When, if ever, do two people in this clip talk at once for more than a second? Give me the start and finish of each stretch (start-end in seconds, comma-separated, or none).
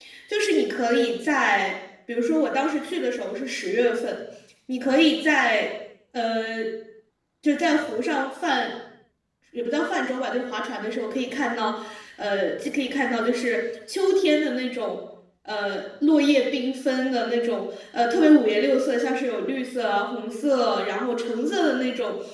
none